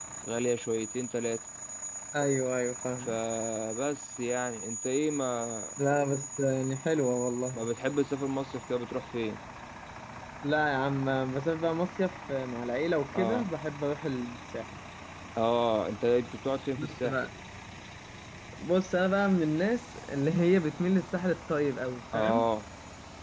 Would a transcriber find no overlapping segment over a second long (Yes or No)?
Yes